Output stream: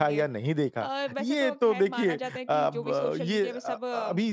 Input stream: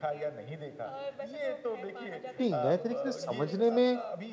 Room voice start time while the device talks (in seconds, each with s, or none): 2.4 s